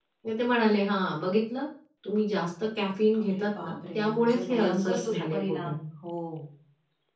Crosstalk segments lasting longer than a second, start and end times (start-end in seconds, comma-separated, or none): 3.2-5.7